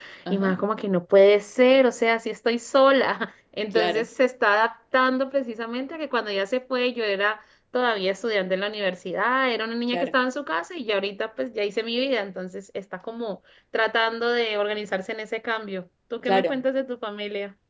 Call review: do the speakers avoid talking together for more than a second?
Yes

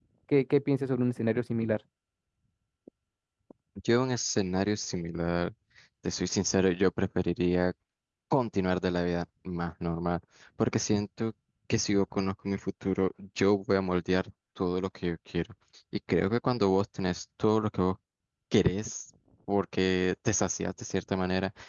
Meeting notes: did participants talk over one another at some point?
No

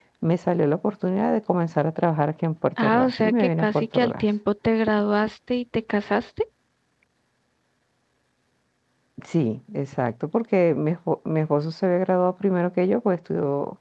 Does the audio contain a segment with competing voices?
Yes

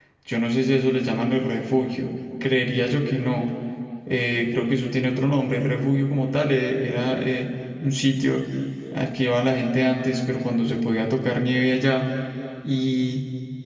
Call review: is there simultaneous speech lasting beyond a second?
No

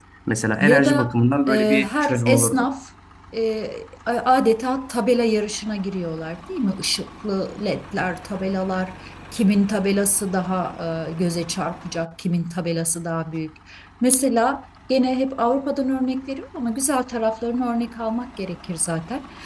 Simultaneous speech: Yes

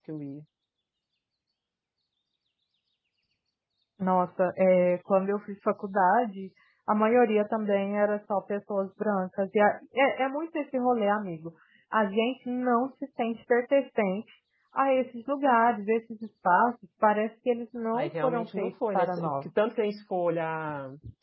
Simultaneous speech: Yes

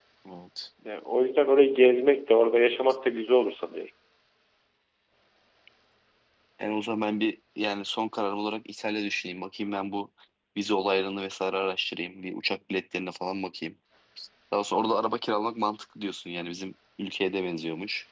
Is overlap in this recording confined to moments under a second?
Yes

